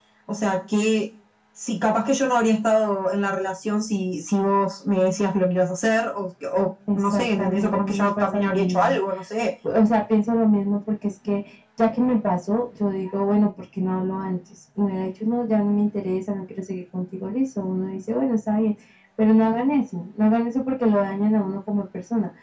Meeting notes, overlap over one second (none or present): present